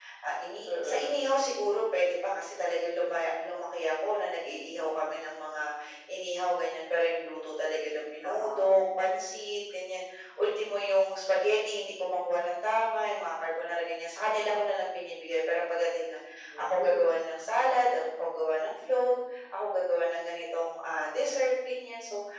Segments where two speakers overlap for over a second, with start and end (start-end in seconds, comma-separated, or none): none